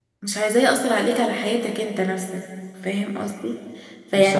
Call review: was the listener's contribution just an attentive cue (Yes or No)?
Yes